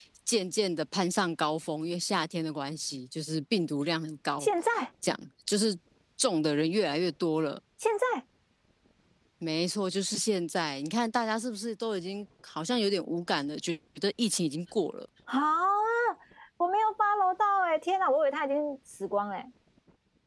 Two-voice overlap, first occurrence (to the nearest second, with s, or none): none